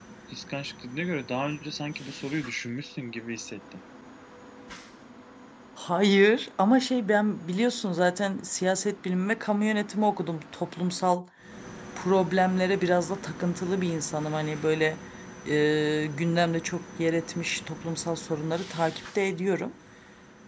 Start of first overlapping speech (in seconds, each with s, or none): none